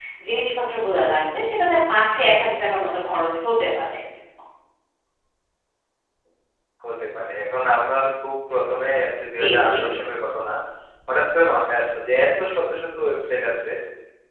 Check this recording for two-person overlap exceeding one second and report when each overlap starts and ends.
none

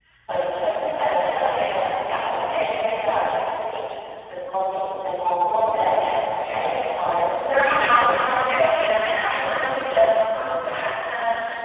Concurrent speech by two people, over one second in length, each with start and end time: 7.4-8.7

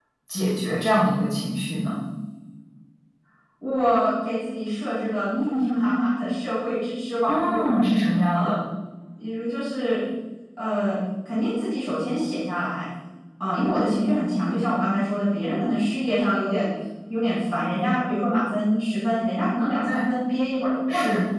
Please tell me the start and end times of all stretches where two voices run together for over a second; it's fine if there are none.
none

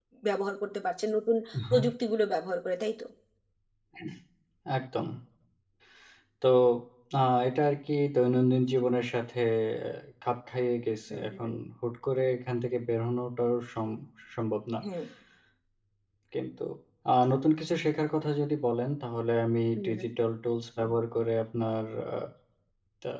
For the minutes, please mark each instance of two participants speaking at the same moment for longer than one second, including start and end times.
none

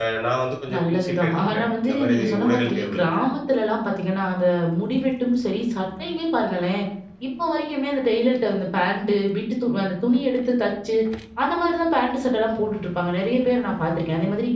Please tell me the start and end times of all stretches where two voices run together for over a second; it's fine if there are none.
0.7-3.0

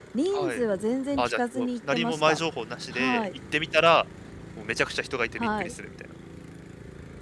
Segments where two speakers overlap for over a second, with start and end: 1.2-2.4

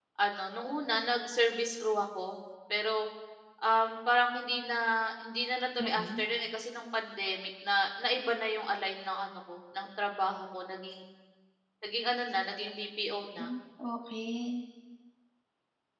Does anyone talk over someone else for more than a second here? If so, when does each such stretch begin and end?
none

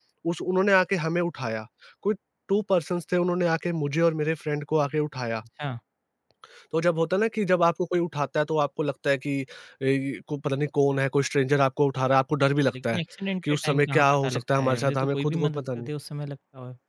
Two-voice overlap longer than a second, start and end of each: 13.5-15.9

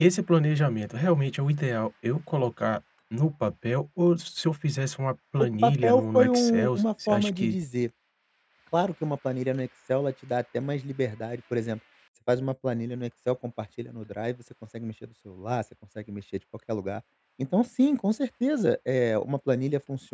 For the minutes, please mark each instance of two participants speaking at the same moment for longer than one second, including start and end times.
5.4-7.5

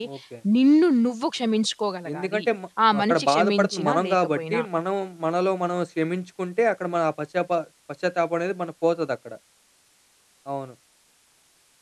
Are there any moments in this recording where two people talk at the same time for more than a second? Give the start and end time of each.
3.0-4.6

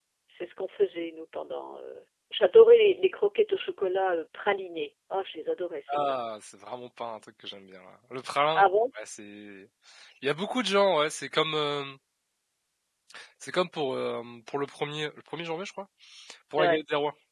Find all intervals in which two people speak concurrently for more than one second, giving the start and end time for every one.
none

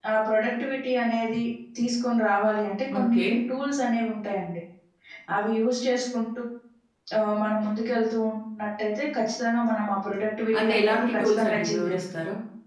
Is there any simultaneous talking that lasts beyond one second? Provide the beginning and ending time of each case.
10.6-12.0

